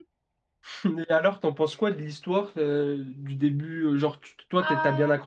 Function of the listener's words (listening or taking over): listening